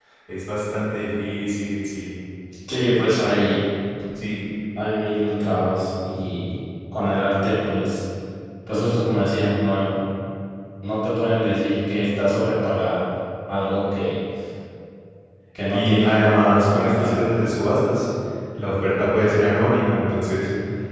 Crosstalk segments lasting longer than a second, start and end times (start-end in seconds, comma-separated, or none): 15.7-17.2